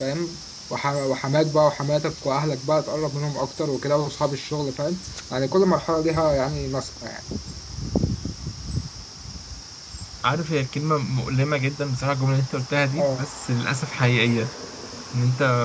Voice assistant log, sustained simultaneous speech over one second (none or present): none